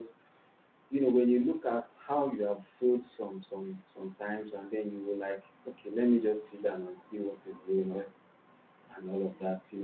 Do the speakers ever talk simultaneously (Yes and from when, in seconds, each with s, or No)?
No